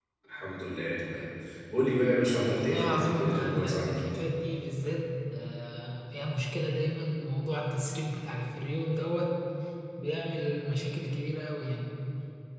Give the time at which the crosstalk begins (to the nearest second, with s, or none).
3 s